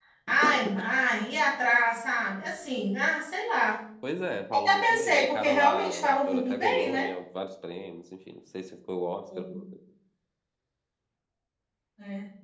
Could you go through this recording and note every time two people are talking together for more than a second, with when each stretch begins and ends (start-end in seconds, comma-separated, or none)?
4.5-7.1